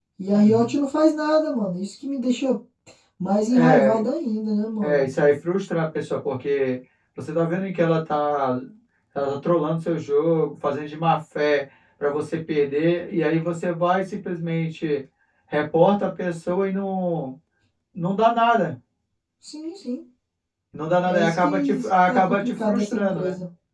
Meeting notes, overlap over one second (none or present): present